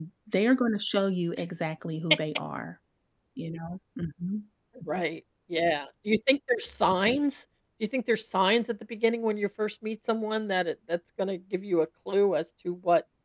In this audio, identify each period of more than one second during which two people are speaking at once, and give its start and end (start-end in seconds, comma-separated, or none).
none